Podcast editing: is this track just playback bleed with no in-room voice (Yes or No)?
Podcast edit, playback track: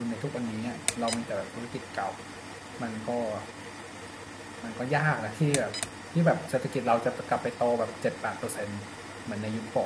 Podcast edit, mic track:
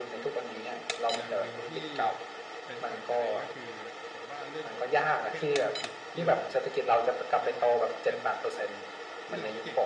No